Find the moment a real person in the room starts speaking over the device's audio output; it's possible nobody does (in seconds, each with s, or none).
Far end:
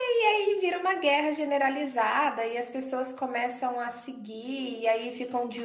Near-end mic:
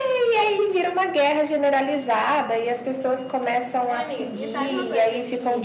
3.8 s